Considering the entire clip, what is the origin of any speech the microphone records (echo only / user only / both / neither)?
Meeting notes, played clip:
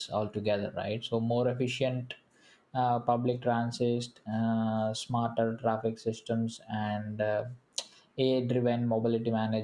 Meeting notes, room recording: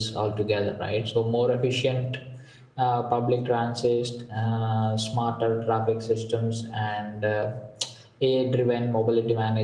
echo only